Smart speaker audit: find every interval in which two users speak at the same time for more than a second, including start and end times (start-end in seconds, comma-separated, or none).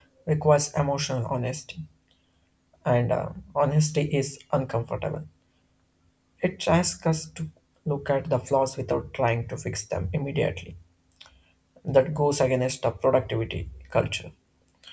none